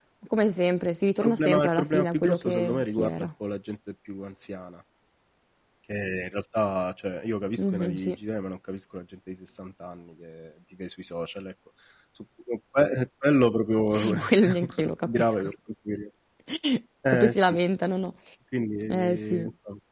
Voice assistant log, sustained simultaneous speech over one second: present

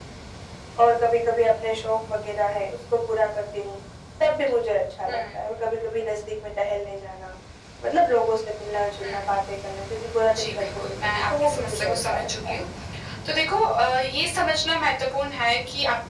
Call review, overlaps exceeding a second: present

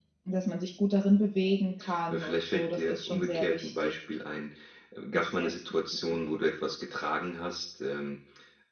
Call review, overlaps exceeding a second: present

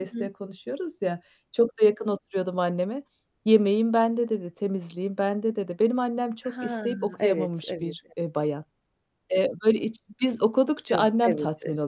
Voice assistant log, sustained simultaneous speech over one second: present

